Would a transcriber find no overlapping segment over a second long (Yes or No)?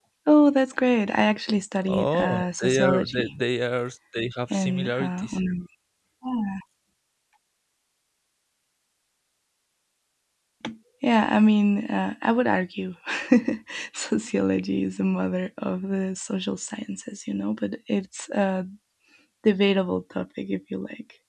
No